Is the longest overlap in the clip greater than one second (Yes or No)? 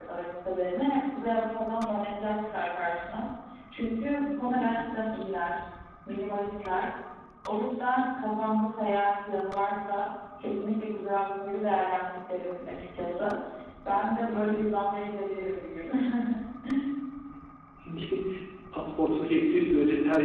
No